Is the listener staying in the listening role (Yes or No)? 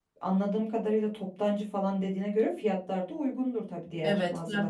No